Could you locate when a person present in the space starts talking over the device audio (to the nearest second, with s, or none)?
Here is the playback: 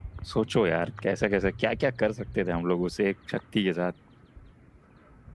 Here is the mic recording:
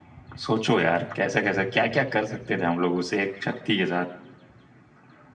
none